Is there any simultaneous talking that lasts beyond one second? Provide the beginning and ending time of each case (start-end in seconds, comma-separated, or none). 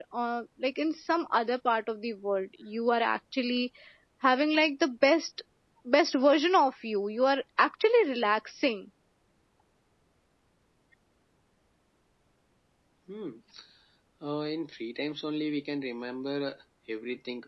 none